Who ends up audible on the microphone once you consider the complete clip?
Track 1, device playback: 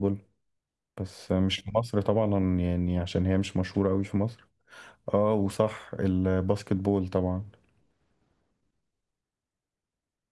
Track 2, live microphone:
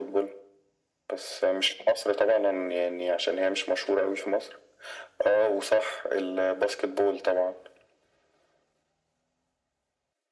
echo only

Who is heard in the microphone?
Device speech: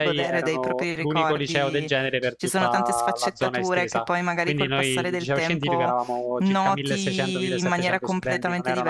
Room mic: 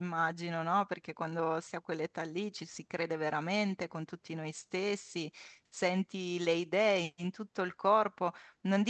user only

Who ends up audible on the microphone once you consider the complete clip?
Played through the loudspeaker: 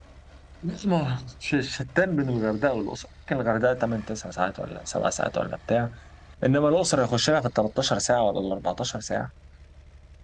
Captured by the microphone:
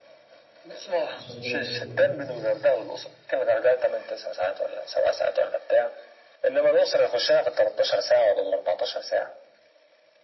both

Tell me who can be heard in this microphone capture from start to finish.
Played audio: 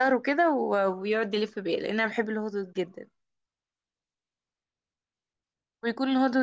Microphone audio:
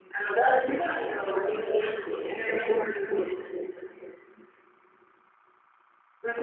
echo only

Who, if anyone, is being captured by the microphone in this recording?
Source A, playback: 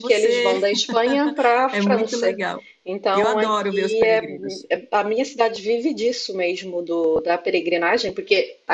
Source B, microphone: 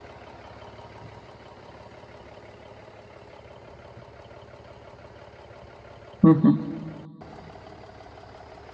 user only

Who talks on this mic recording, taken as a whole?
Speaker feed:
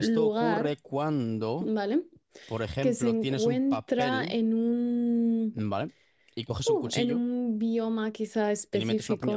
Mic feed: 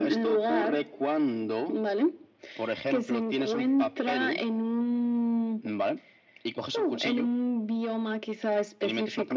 echo only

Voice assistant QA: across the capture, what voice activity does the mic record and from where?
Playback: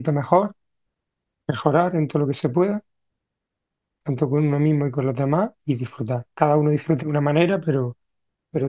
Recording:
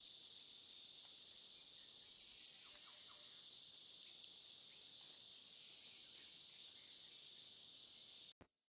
neither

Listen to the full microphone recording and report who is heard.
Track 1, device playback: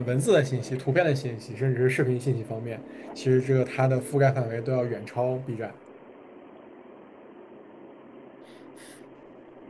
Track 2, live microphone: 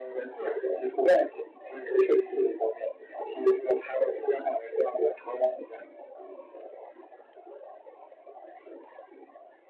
echo only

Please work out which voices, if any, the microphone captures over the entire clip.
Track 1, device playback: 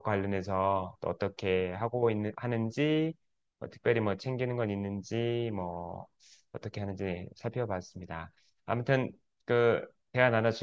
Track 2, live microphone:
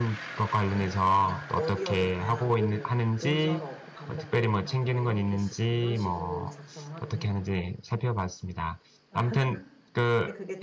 both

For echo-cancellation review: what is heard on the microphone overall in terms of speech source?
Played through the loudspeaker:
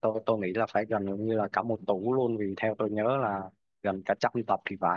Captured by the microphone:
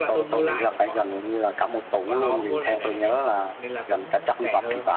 both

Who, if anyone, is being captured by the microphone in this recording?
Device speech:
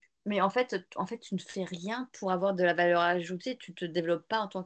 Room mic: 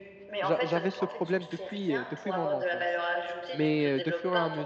both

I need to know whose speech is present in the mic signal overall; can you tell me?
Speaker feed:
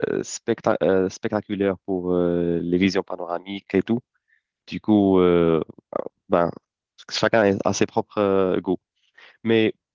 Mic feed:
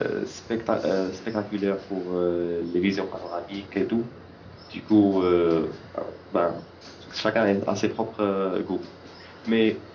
echo only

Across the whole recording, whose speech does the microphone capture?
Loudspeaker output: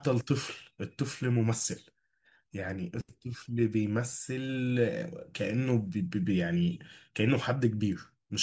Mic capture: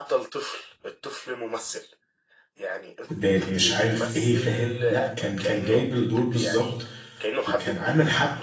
both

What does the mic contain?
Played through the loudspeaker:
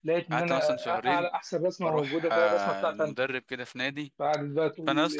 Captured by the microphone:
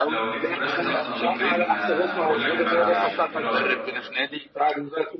both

